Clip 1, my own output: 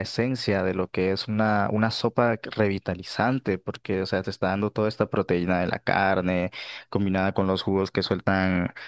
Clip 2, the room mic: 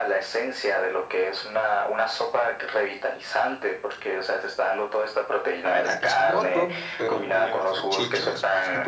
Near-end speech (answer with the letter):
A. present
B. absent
A